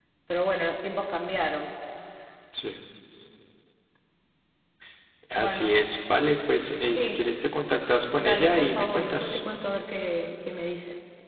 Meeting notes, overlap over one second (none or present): present